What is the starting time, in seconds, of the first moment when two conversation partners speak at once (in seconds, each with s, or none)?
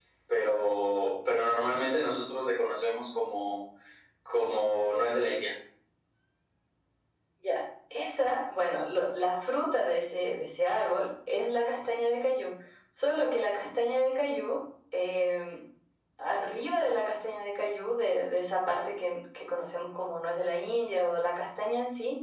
none